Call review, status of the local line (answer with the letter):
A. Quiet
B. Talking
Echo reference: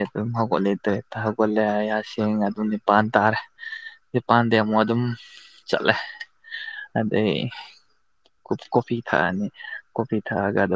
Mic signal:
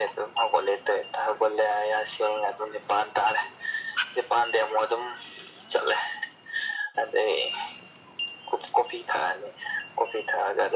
A